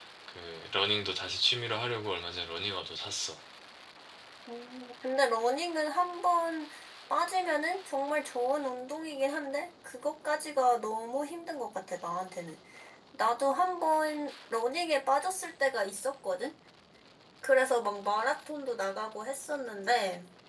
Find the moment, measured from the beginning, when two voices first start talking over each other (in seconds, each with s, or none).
none